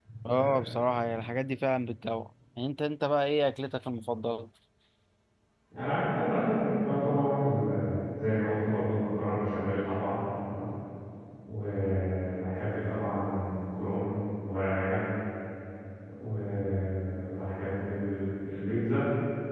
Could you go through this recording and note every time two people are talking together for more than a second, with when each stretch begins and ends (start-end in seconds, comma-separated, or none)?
none